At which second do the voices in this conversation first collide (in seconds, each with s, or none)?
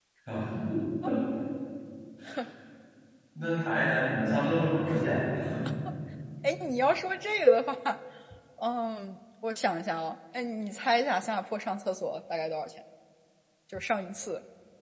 none